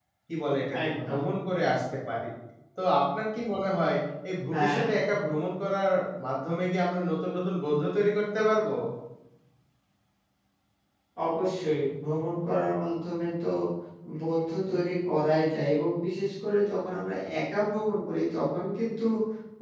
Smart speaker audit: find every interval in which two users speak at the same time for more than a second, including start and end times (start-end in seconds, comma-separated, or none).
none